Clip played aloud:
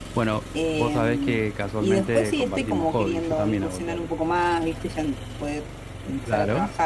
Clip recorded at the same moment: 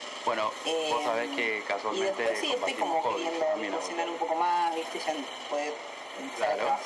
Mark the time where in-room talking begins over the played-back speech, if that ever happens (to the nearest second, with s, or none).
none